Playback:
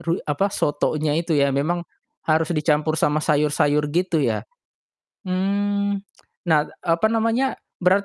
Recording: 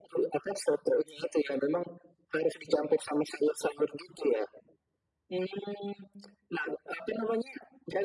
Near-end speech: none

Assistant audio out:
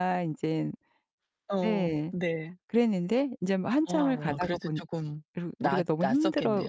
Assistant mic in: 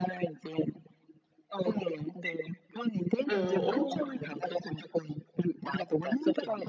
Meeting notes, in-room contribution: present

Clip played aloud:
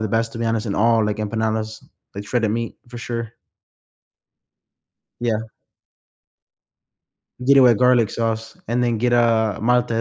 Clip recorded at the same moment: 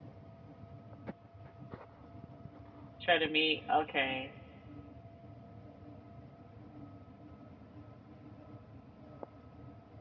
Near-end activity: present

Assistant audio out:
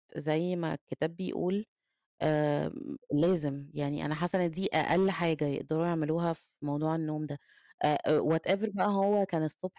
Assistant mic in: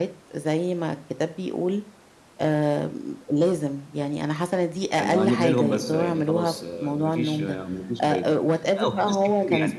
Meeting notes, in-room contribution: present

